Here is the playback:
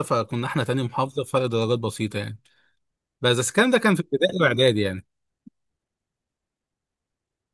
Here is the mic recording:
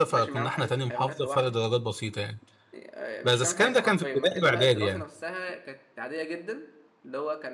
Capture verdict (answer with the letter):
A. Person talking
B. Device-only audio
A